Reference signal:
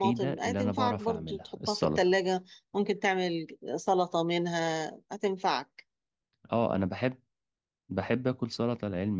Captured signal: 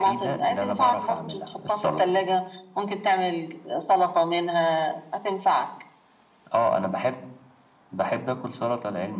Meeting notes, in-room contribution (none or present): none